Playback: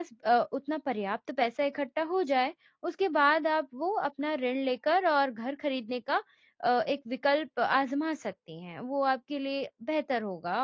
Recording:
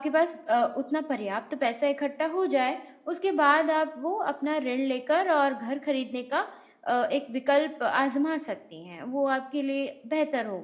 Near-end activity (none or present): none